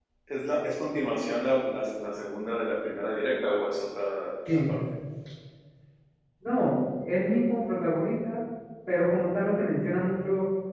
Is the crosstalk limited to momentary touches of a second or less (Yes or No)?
Yes